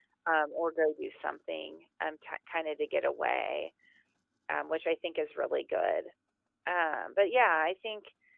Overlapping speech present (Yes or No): No